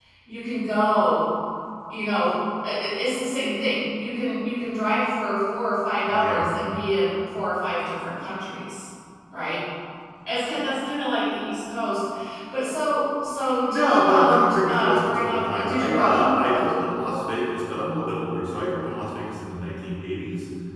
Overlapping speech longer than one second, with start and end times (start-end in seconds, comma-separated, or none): 13.7-16.7